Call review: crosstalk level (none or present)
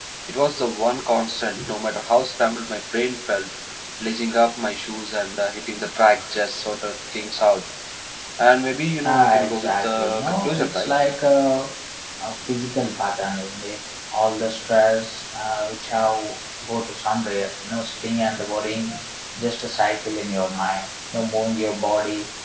present